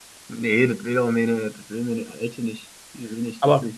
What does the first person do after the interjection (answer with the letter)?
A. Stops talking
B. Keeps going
B